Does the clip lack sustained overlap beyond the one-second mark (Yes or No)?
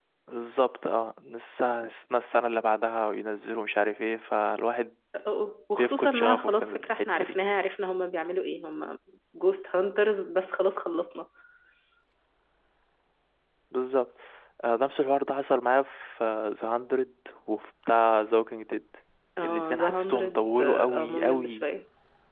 No